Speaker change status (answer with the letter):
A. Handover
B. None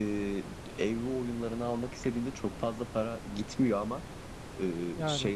B